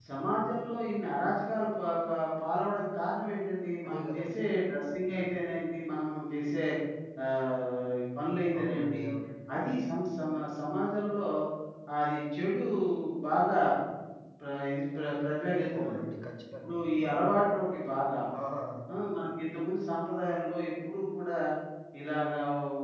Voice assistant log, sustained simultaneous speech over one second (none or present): none